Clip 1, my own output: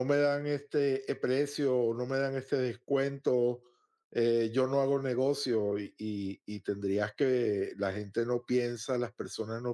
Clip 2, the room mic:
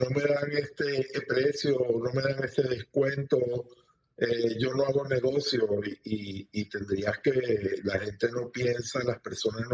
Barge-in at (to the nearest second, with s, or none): none